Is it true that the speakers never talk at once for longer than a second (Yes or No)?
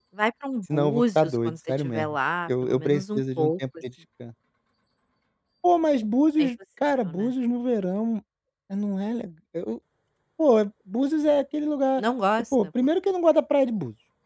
No